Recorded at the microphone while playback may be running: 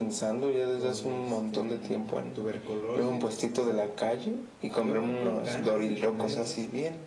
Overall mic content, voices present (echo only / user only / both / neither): both